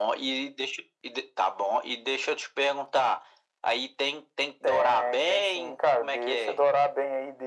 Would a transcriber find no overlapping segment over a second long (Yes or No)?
No